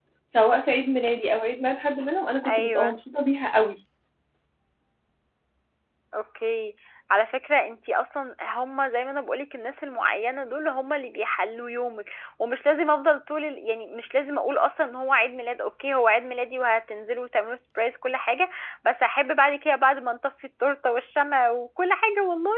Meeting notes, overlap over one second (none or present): none